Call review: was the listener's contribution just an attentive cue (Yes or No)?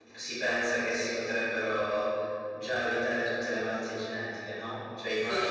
Yes